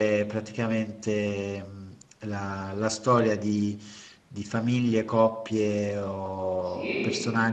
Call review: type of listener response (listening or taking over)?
listening